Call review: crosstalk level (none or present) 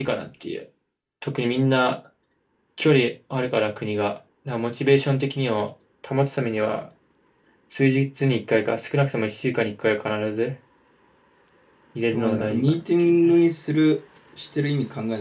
present